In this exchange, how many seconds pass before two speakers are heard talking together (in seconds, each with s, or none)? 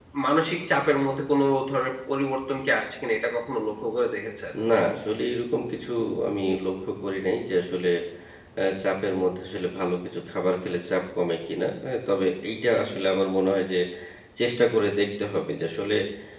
none